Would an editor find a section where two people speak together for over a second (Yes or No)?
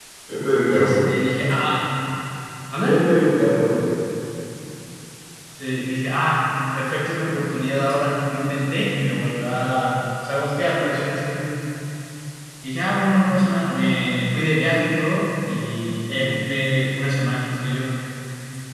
No